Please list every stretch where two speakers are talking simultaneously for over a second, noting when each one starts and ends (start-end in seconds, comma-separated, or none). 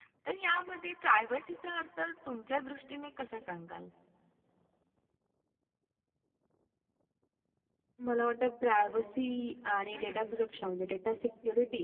none